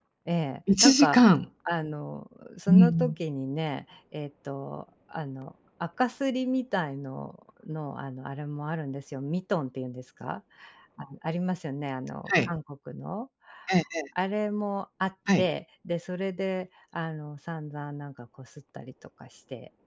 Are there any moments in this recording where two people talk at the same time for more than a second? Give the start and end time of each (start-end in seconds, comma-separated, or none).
none